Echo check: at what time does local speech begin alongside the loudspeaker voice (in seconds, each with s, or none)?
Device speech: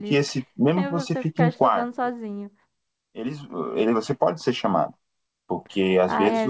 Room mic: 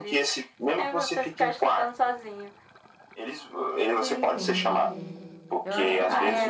3.9 s